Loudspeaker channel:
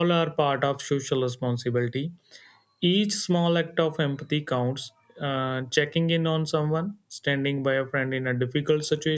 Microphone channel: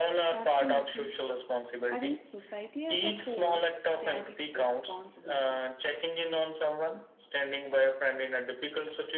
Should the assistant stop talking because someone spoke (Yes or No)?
Yes